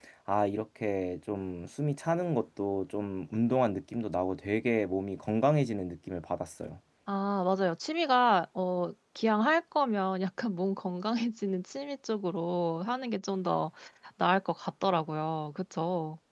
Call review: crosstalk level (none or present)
none